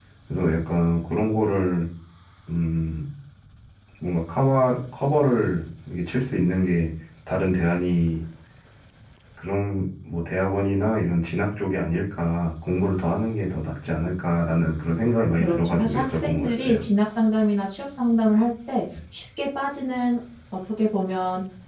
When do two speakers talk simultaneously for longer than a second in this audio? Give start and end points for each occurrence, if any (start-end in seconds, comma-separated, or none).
15.4-16.8